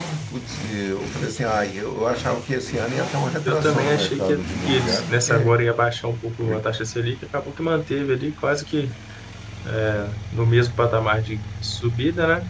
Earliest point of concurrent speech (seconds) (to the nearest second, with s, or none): 3 s